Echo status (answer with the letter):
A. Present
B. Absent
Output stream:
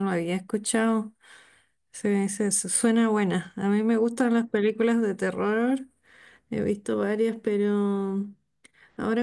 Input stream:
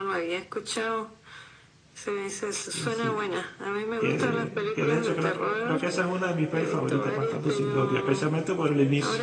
A